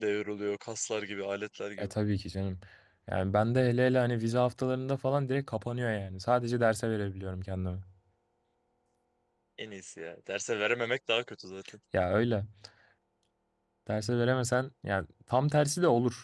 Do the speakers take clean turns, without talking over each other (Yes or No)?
Yes